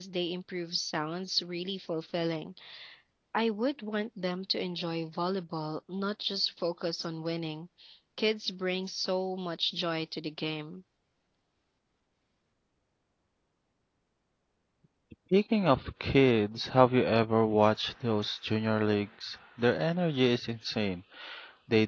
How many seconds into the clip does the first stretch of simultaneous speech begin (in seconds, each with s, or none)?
none